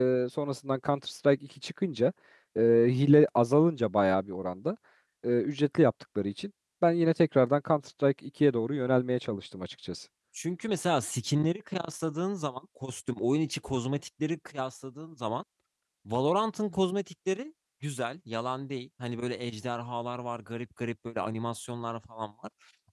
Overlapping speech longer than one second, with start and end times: none

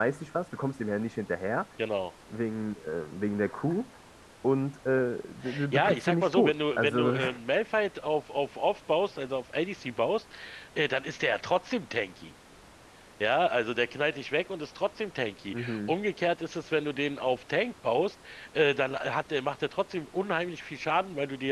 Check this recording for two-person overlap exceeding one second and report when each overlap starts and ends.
5.7-7.2

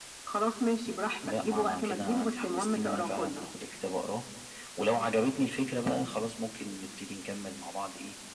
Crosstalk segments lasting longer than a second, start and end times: 1.3-3.4

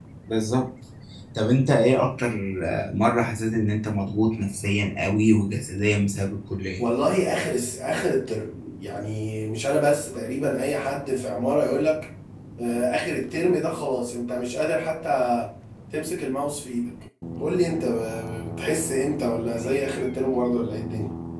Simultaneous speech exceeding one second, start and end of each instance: none

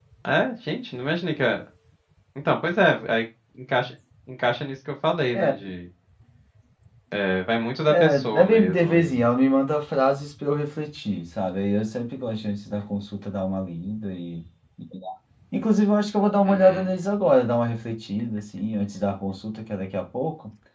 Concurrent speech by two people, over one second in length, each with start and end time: 7.9-9.2

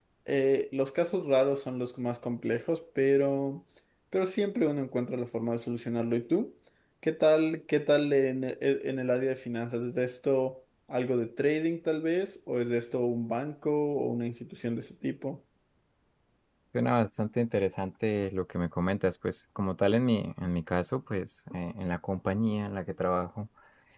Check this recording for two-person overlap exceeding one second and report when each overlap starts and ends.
none

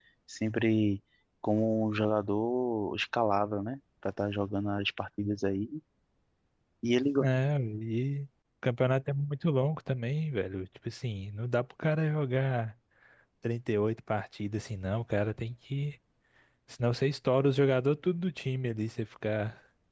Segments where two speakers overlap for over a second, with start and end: none

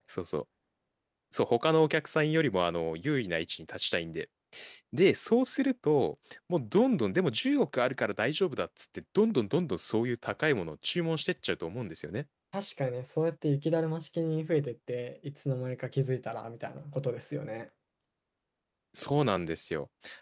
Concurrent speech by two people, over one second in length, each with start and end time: none

